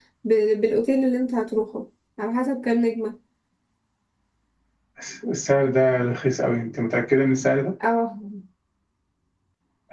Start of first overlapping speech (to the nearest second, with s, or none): none